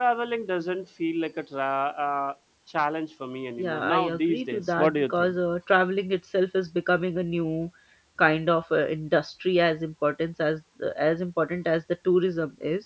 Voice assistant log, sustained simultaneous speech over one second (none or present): present